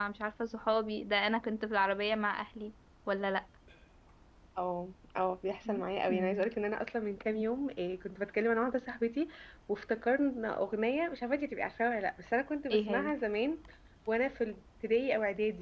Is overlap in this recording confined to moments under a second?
Yes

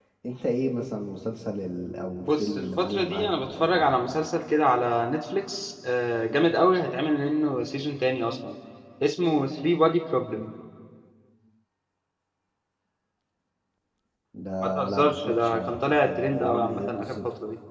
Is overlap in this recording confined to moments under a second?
No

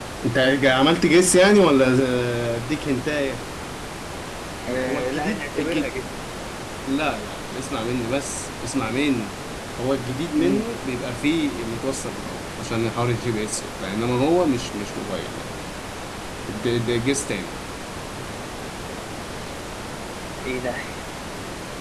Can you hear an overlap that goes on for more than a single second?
Yes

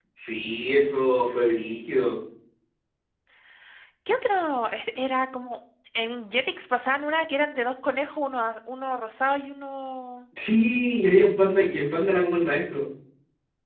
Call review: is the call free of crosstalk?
Yes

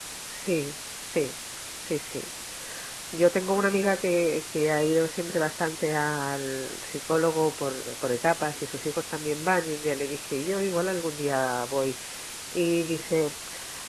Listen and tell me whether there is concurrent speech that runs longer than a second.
No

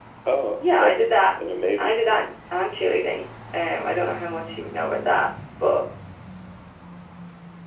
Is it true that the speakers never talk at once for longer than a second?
Yes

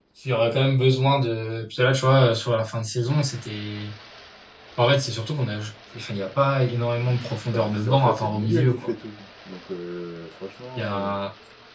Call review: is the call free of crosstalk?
No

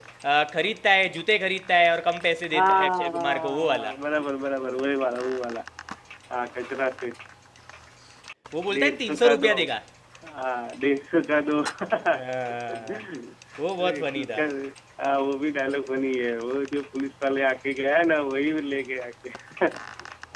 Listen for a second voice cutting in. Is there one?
Yes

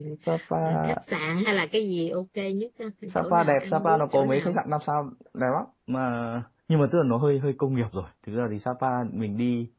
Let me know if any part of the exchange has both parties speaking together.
Yes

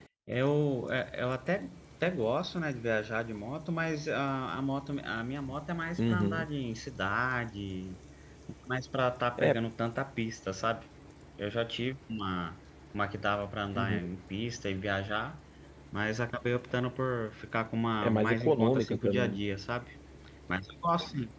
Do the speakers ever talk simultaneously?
Yes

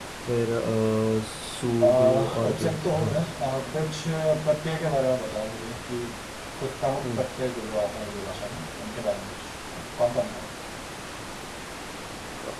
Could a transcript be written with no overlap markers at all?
No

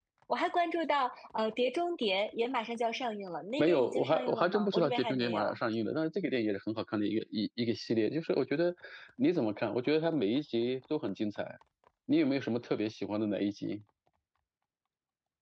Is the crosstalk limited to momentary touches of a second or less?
No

